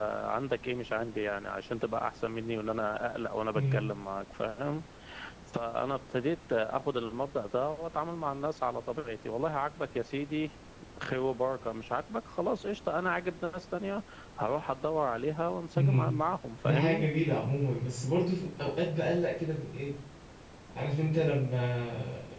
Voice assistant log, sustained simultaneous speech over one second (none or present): none